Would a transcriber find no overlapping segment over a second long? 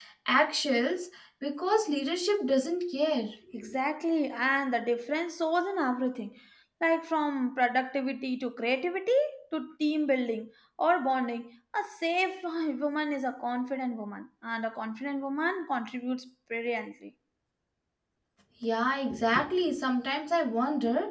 Yes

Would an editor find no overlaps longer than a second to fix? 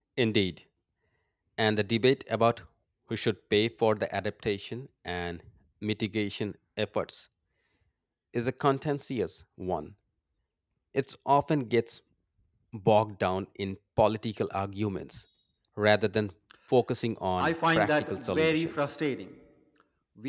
No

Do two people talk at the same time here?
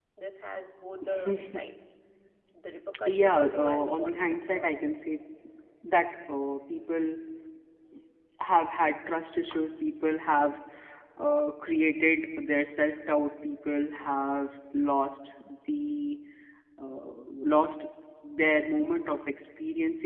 Yes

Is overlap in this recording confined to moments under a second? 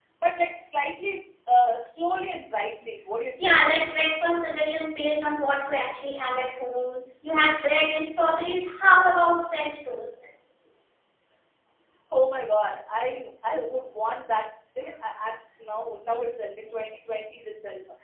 Yes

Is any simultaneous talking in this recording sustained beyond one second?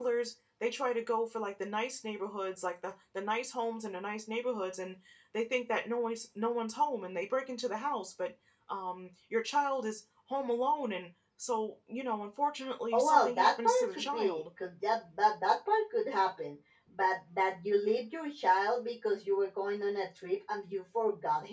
Yes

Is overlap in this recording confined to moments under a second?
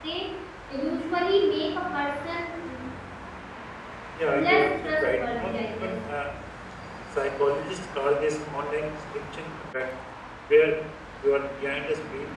No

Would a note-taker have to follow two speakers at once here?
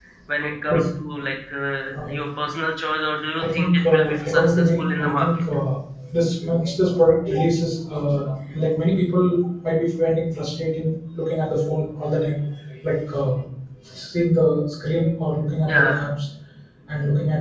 Yes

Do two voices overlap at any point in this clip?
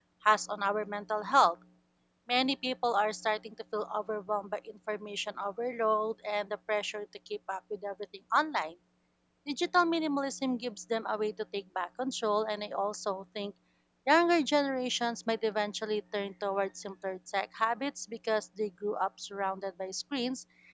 No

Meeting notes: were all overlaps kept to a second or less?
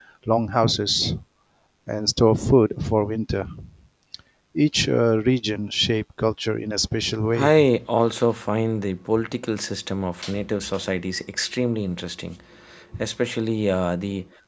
Yes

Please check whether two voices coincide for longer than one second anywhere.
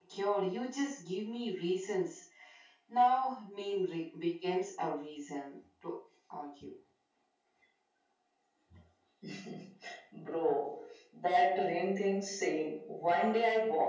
No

